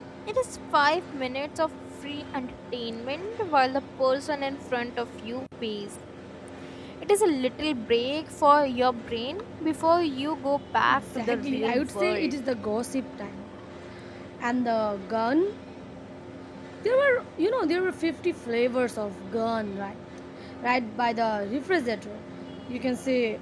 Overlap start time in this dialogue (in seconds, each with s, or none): 10.9 s